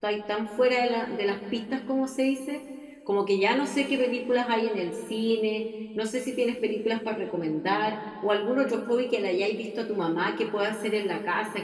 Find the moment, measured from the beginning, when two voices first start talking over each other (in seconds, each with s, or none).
none